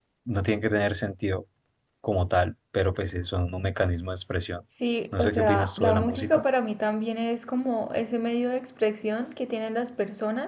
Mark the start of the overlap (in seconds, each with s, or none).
5.2 s